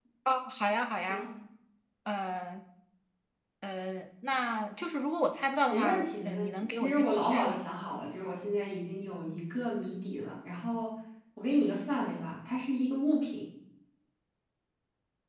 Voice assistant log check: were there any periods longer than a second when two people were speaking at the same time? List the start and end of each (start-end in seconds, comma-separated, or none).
5.7-7.6